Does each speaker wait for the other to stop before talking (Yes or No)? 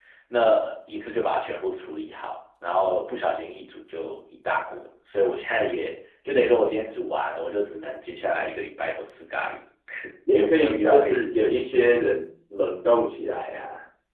No